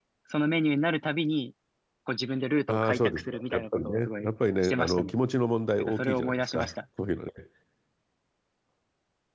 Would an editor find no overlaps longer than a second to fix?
No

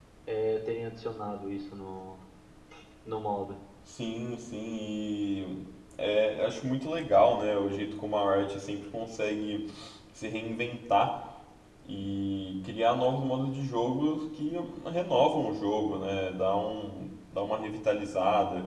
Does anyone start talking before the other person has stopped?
No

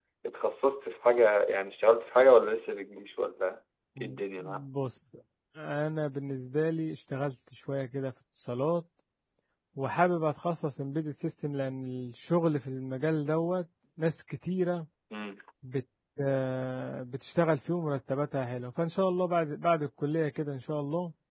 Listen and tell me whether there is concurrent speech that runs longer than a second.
No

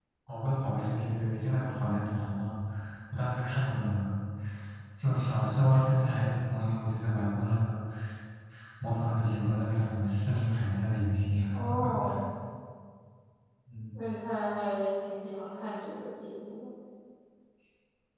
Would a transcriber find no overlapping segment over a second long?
Yes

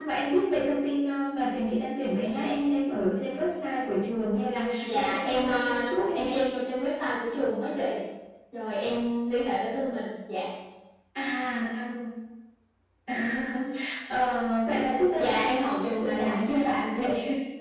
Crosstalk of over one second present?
Yes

